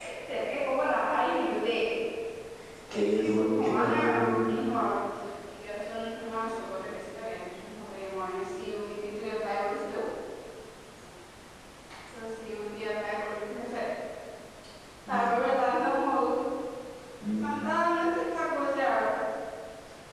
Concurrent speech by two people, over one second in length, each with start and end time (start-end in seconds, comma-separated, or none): 2.9-4.4